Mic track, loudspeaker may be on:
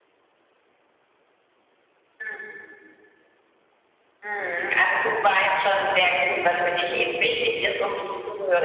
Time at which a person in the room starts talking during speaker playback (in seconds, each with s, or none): none